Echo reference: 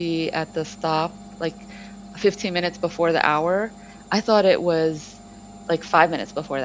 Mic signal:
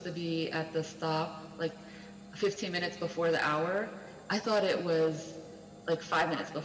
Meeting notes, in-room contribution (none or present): none